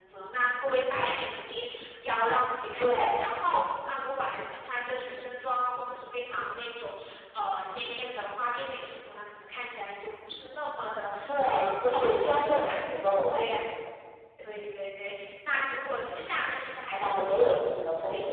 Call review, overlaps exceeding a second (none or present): present